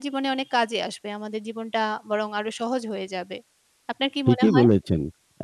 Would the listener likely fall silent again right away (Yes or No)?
No